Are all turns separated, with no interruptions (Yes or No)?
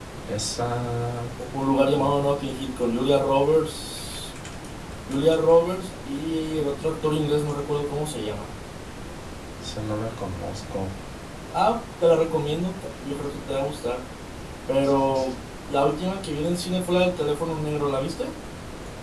Yes